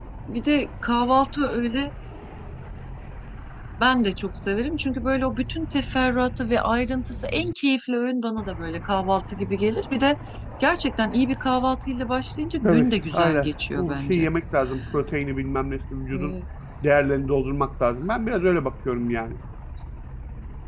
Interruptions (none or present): present